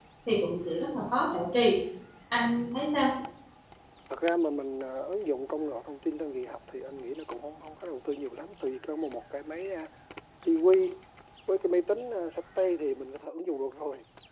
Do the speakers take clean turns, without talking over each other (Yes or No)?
Yes